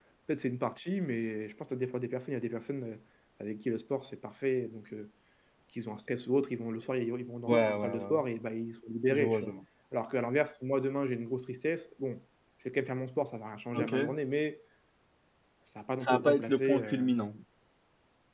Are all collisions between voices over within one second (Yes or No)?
No